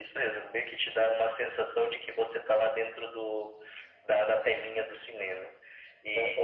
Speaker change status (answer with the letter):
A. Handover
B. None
A